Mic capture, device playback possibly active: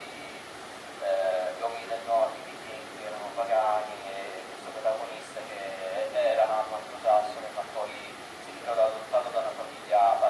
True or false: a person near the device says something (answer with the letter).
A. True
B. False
B